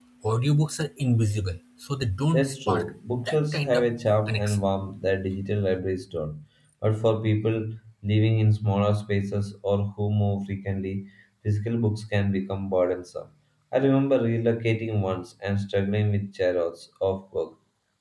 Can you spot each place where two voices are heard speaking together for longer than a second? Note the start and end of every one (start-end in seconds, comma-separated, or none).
2.3-3.9